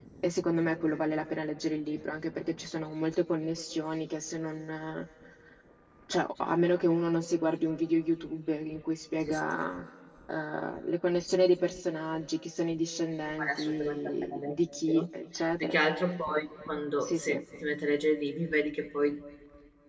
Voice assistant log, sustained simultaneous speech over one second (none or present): present